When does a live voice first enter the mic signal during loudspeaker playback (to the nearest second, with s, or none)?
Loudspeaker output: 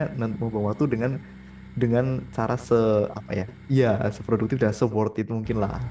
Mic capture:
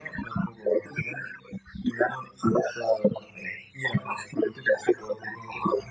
none